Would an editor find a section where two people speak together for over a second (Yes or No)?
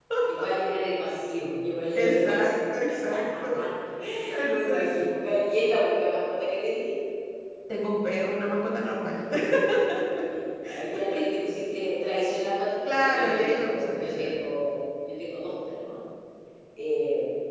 Yes